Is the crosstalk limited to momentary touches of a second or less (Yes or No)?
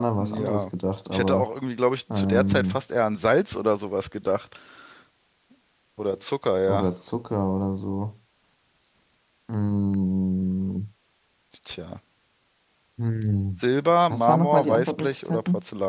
No